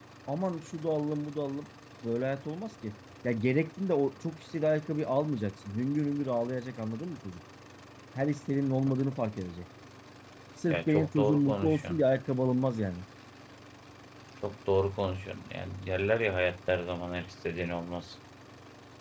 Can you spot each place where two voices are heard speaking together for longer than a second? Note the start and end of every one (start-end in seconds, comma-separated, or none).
10.7-12.0